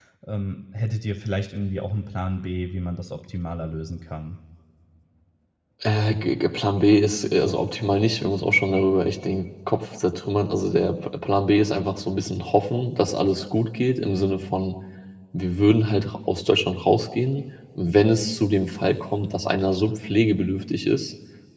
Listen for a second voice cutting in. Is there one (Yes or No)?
No